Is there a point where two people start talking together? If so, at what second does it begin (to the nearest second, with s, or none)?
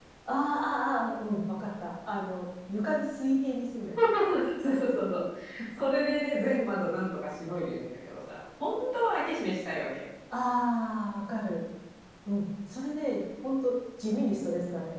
none